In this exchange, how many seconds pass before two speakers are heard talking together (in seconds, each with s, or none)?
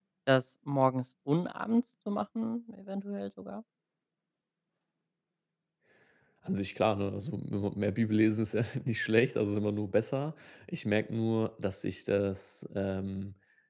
none